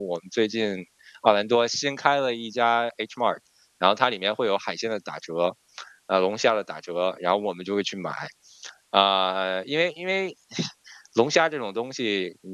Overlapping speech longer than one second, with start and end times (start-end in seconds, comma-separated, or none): none